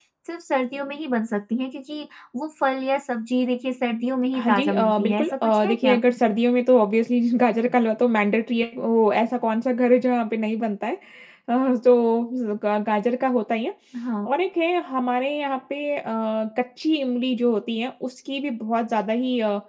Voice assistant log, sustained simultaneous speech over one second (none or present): present